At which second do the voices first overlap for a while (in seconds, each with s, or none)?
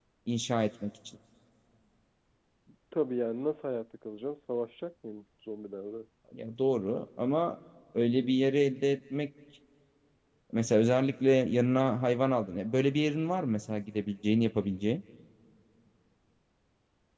none